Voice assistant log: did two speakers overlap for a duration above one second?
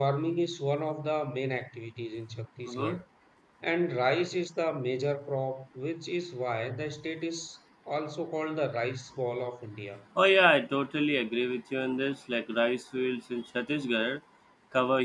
No

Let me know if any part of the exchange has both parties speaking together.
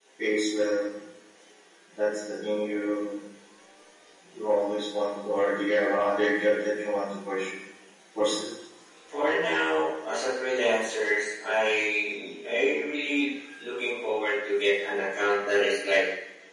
No

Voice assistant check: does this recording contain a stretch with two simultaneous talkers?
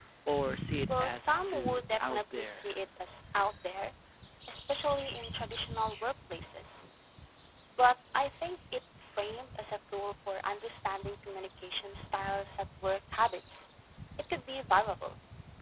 Yes, from 0.9 s

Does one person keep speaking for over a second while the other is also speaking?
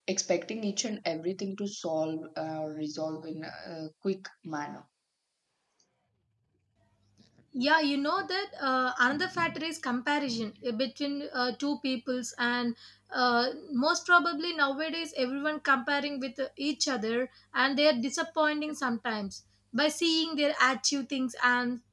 No

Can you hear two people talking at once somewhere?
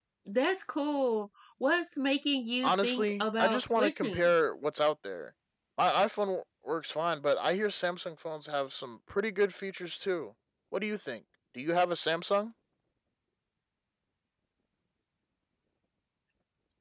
Yes, from 2.6 s

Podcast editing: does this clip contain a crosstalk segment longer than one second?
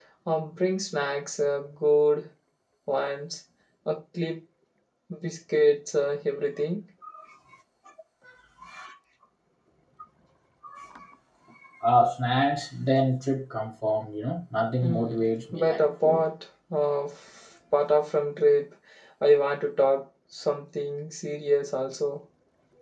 Yes, from 14.8 s

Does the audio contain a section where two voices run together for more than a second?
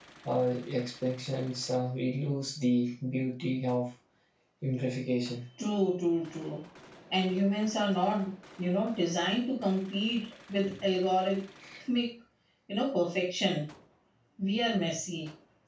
No

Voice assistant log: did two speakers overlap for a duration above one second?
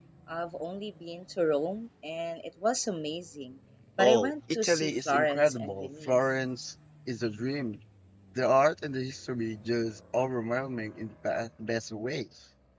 Yes, from 4.0 s

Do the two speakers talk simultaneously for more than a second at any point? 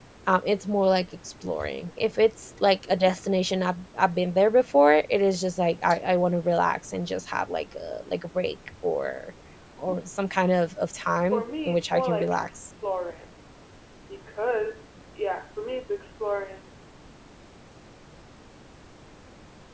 Yes, from 11.3 s

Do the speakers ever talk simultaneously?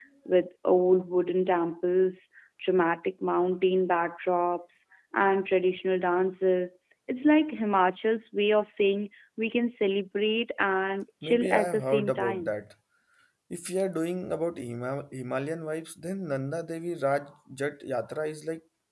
Yes, from 11.2 s

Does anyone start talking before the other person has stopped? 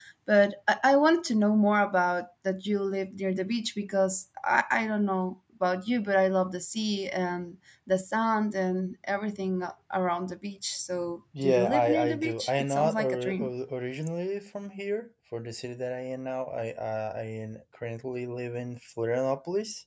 Yes, from 11.3 s

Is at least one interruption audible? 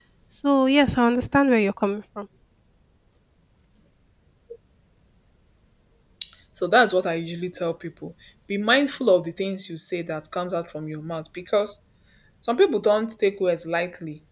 No

